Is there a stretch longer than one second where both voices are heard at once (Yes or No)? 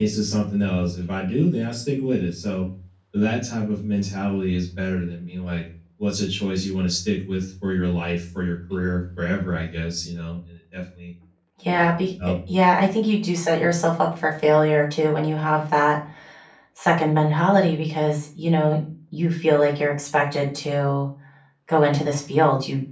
No